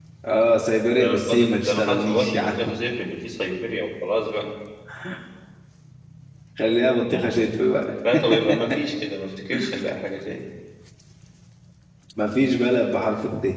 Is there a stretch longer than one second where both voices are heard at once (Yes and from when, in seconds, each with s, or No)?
Yes, from 1.0 s